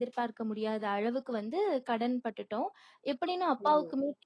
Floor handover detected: No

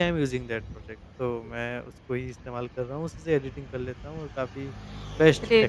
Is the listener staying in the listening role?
No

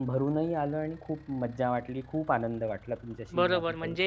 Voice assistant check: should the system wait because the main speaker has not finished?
No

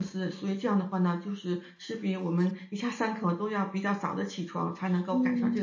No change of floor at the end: No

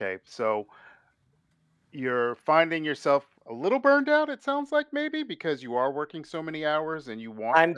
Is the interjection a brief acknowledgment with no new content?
No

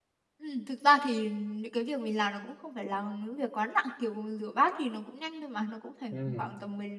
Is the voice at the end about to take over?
No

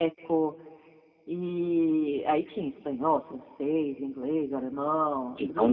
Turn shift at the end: Yes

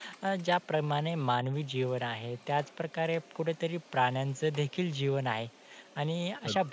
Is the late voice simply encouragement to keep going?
Yes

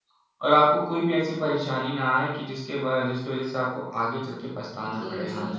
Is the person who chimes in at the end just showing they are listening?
No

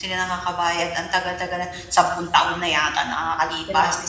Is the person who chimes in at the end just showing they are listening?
No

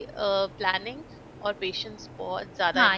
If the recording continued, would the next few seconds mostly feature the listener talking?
Yes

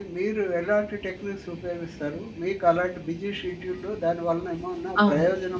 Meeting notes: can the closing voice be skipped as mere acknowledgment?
Yes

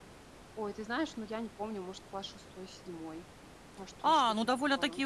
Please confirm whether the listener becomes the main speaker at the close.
Yes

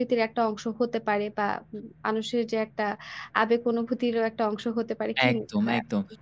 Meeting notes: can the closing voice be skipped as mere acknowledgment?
No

